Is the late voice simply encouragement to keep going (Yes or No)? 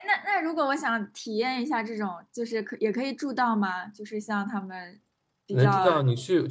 No